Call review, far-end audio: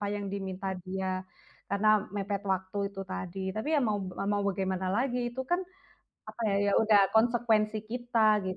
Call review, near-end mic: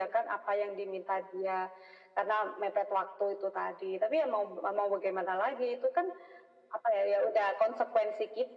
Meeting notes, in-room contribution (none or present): none